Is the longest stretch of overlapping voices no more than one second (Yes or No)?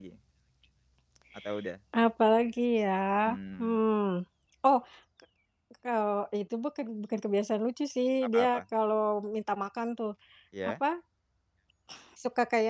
Yes